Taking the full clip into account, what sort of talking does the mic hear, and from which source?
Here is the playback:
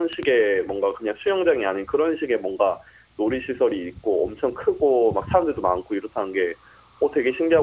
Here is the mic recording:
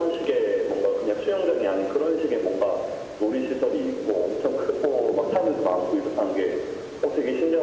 echo only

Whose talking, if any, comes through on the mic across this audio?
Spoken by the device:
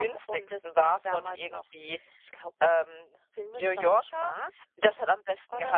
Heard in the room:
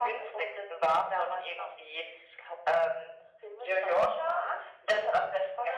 echo only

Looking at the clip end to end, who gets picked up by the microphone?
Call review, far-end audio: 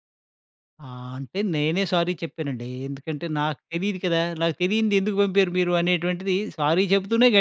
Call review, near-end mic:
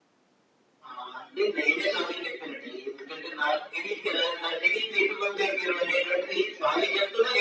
echo only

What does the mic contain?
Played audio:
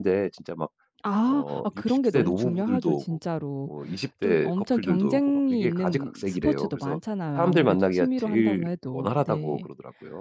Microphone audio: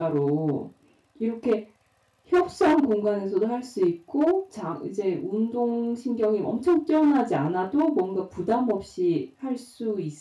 user only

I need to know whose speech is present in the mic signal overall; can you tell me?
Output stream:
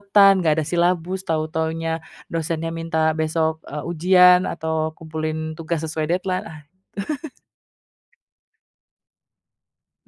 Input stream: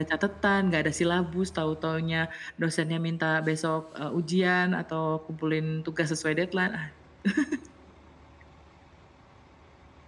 echo only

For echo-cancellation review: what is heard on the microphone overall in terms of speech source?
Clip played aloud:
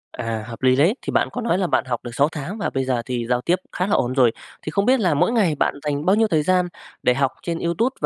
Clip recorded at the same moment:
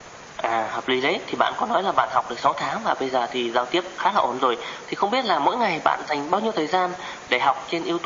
echo only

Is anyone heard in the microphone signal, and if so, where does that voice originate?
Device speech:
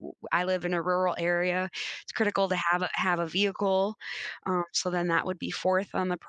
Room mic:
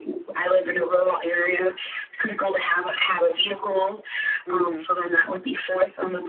both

